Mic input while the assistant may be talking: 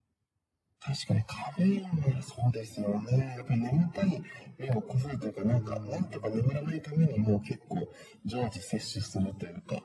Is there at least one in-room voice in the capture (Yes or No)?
Yes